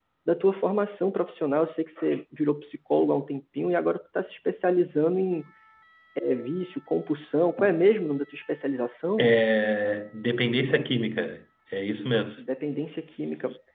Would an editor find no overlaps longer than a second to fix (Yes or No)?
Yes